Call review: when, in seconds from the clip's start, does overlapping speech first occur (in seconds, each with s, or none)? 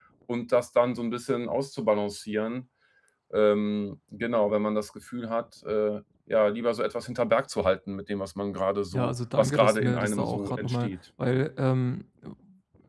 8.9 s